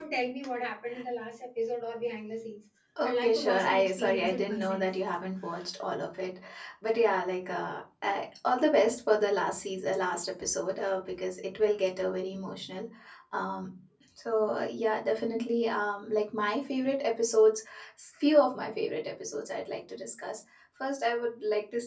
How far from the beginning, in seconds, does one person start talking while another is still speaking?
3.0 s

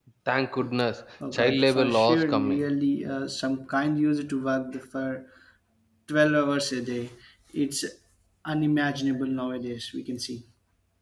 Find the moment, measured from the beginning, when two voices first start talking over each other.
1.3 s

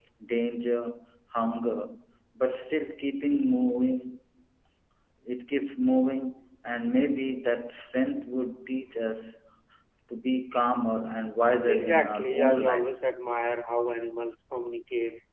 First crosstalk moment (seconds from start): 11.6 s

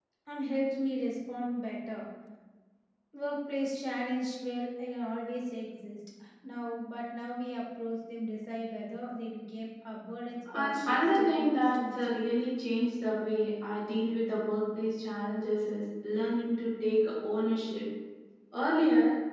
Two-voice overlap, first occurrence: 10.5 s

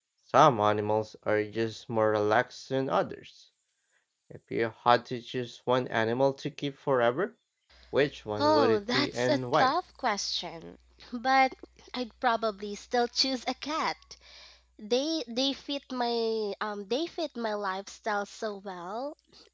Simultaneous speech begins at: 8.4 s

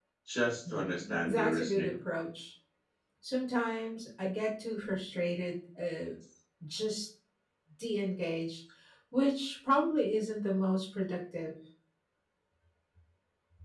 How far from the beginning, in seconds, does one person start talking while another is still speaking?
0.7 s

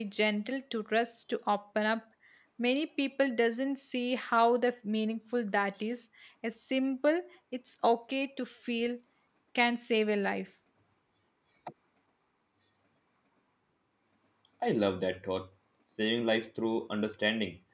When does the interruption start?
none

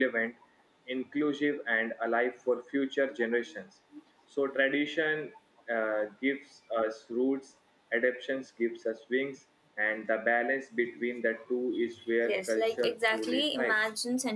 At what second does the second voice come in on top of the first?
12.2 s

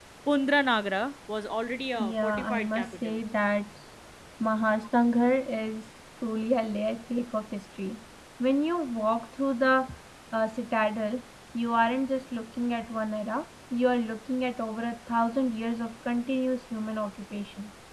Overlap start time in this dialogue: 2.0 s

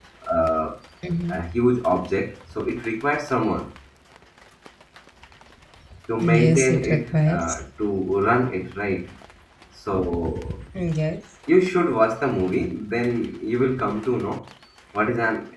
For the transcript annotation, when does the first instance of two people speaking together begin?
6.2 s

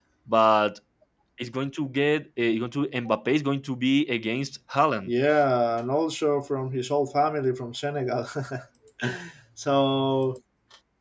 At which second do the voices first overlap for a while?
none

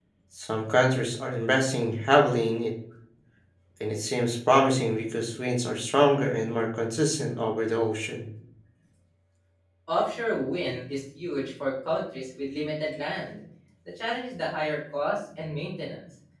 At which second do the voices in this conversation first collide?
none

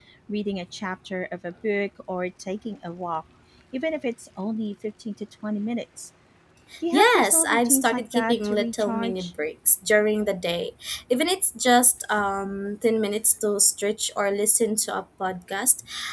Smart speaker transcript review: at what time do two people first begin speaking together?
6.9 s

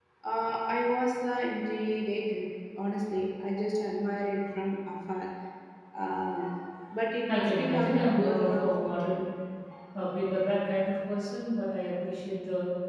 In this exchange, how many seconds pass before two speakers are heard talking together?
7.3 s

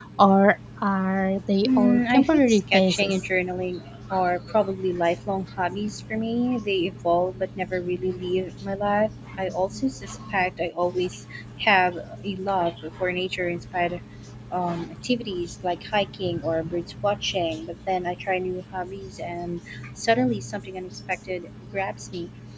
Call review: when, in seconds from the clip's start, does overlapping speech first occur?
1.6 s

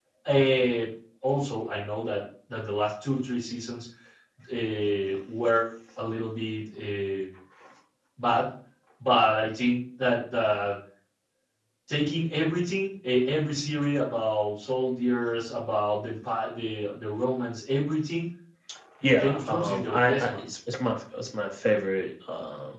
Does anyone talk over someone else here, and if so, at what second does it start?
19.2 s

